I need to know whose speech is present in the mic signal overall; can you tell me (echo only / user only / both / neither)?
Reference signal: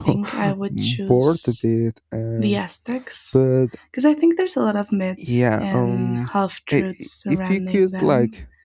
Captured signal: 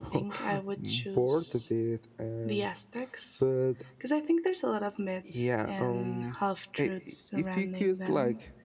echo only